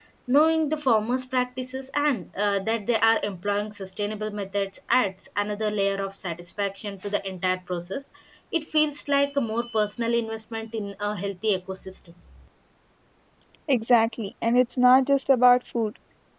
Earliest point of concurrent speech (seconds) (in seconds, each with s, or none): none